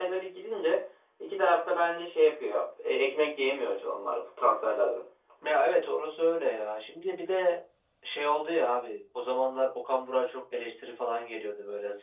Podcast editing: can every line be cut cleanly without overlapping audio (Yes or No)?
Yes